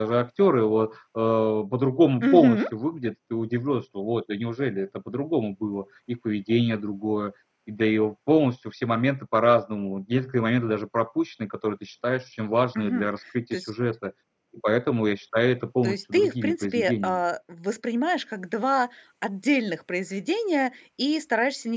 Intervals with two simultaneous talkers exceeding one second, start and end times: 15.8-17.2

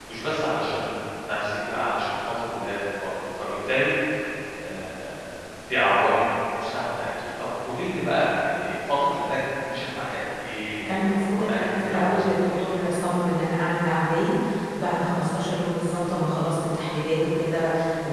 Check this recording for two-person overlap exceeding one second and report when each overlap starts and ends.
10.8-12.8

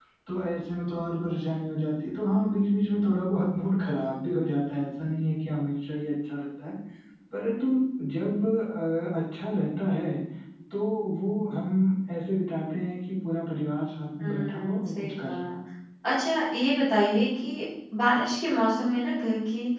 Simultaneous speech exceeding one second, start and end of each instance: 14.2-15.4

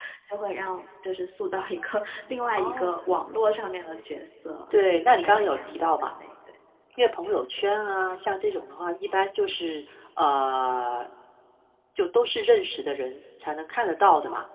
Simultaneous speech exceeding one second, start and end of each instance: 4.7-6.1

